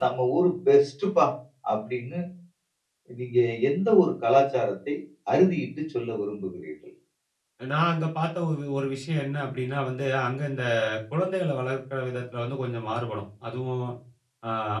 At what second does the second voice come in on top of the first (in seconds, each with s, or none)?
none